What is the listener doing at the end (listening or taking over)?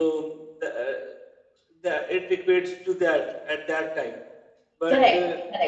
taking over